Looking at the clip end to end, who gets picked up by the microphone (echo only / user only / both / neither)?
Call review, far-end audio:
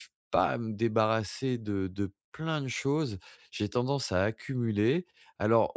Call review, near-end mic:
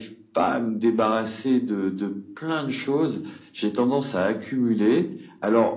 echo only